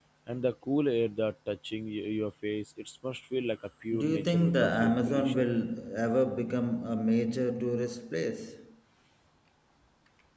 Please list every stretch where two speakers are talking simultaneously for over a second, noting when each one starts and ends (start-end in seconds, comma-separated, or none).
3.9-5.4